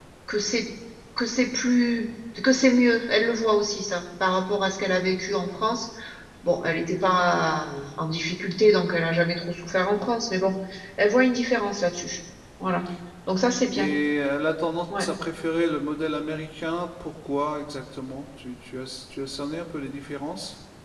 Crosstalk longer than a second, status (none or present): none